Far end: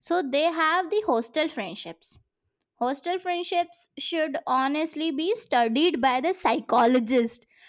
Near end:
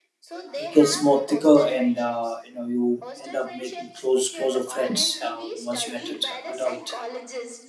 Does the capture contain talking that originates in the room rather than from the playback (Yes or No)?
Yes